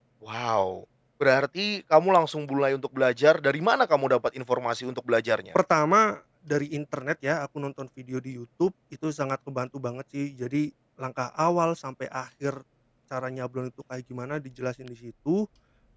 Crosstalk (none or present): none